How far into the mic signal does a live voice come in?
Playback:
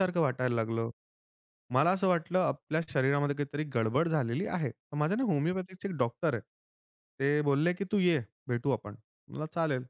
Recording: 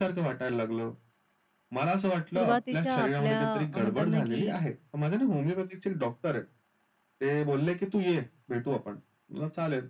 2.3 s

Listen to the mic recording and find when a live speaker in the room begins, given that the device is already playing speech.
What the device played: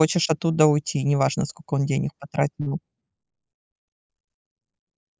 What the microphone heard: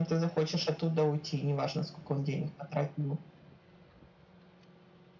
none

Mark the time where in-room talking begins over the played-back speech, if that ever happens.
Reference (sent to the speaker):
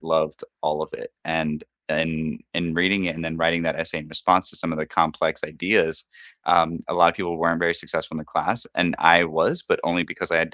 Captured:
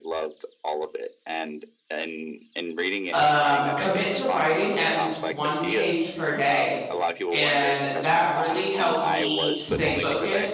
3.1 s

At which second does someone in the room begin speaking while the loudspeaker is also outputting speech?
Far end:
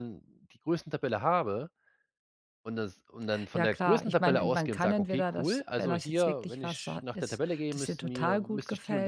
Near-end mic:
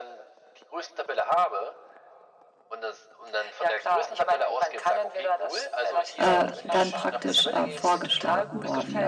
6.2 s

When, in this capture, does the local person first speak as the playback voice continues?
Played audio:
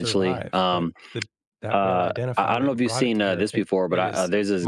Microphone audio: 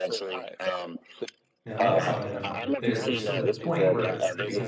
1.6 s

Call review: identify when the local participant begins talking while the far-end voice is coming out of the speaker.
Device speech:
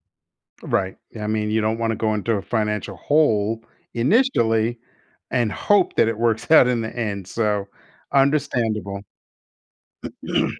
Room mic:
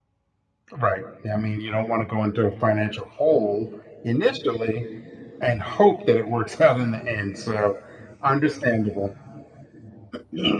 none

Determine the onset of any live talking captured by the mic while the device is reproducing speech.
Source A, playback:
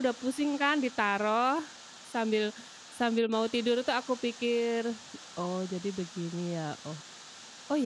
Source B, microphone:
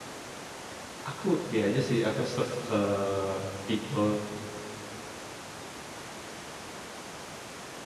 1.1 s

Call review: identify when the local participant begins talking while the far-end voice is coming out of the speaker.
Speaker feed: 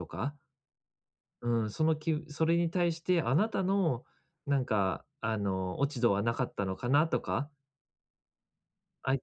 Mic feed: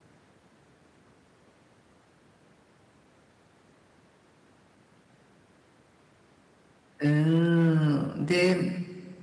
7.0 s

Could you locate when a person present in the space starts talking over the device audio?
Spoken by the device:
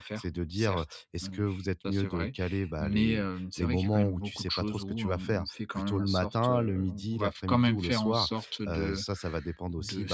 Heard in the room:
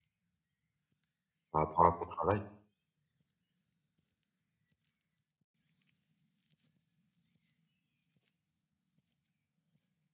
1.5 s

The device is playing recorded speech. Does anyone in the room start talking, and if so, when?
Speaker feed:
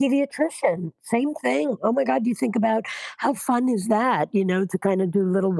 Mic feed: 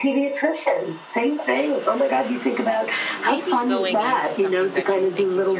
3.1 s

